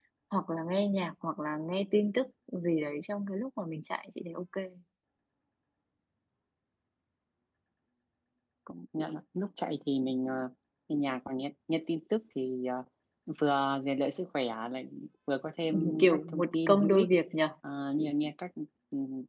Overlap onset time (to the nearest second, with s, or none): 16 s